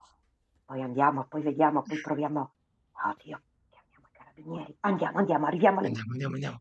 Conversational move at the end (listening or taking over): taking over